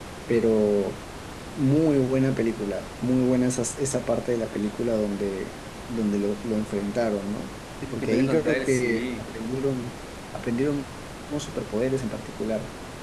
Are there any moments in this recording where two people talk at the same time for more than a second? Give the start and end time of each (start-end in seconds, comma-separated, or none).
7.9-9.4